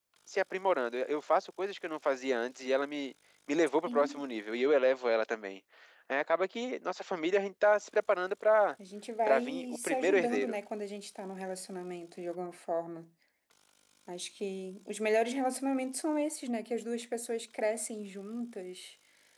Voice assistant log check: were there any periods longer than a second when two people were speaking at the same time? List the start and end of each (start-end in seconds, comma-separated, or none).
9.3-10.5